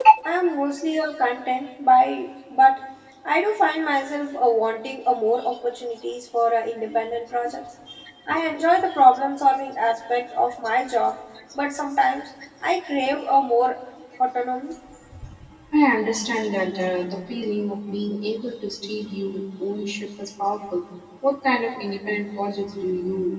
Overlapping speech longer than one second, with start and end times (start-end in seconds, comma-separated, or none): none